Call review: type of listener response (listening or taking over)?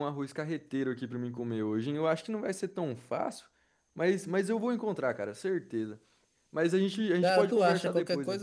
taking over